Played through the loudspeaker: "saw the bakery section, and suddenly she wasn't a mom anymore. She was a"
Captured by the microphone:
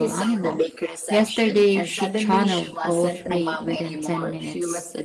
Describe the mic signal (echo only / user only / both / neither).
both